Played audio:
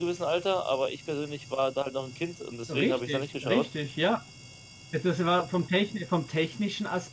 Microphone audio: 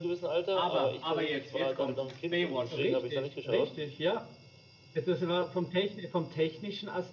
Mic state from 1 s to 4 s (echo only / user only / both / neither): both